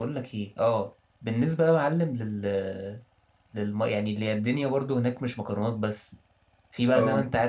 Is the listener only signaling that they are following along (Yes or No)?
Yes